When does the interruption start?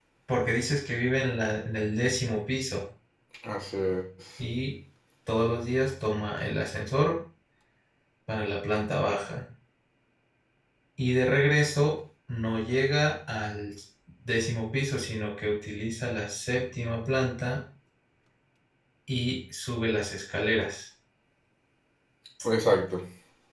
none

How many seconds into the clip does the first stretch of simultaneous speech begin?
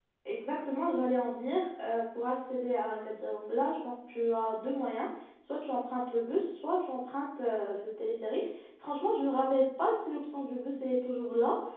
none

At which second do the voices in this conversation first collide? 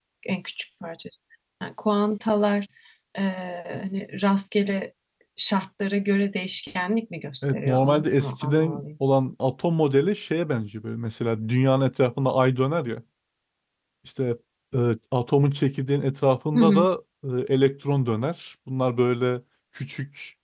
7 s

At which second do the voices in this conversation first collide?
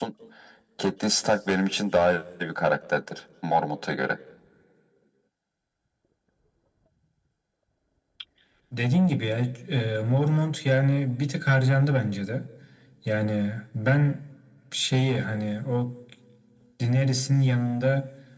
none

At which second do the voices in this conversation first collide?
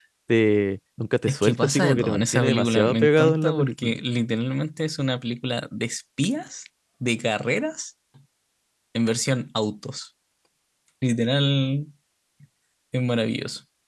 1 s

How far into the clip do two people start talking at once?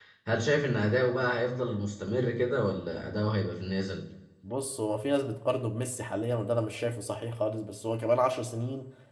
none

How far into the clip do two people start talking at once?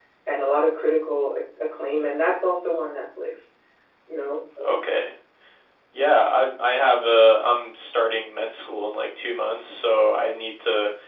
none

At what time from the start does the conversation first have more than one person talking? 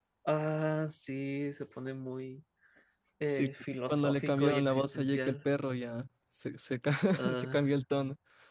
3 s

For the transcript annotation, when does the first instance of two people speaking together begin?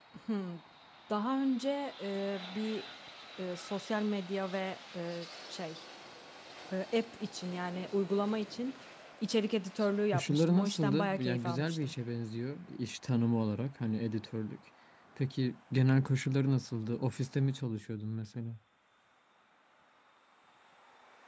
10 s

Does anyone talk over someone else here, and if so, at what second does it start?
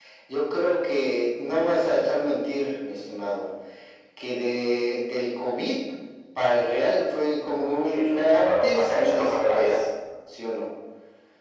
8 s

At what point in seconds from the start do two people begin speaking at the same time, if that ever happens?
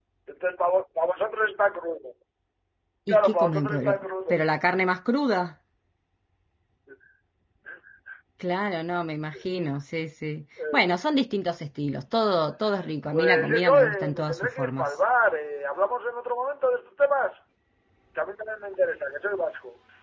3 s

